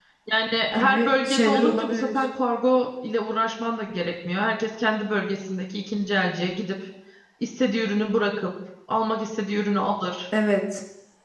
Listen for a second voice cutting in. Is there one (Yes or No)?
Yes